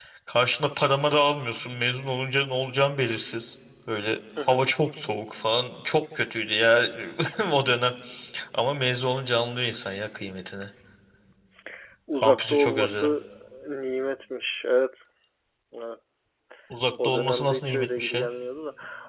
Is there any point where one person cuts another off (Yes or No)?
Yes